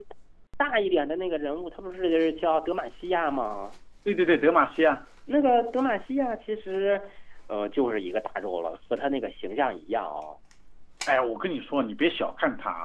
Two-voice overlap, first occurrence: none

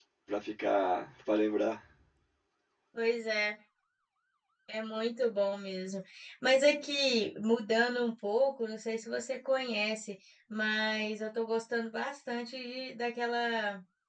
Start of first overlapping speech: none

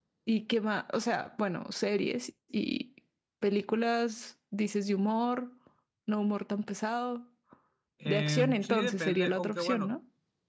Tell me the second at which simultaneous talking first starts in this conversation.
8.1 s

